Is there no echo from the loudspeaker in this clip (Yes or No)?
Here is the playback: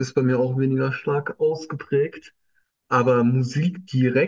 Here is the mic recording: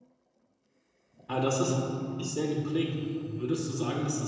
Yes